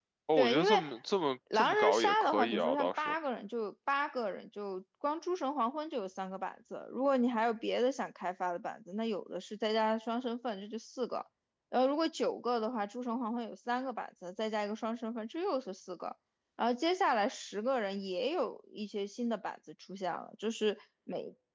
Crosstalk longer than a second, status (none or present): present